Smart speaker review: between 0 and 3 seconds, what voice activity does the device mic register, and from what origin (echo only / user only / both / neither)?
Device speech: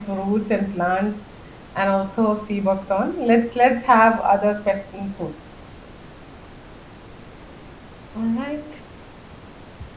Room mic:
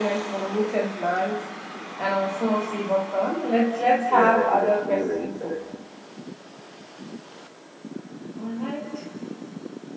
echo only